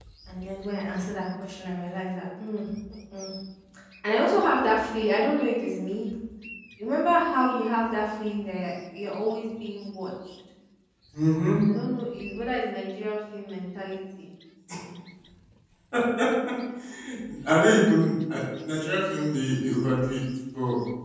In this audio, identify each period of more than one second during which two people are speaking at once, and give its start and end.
none

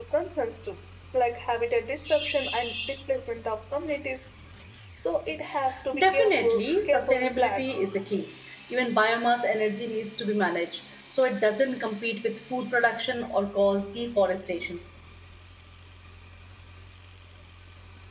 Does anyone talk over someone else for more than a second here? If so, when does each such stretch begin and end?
6.0-7.6

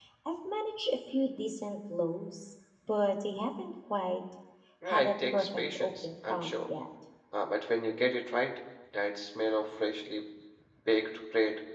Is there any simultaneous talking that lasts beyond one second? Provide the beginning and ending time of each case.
4.9-6.7

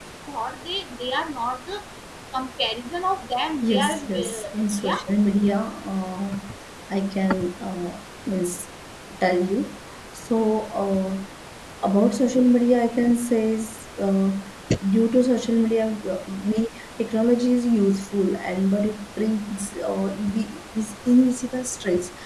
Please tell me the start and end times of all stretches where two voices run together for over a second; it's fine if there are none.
3.7-5.0

